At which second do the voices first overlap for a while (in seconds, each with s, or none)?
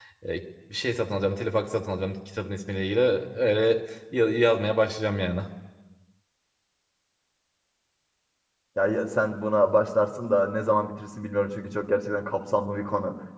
none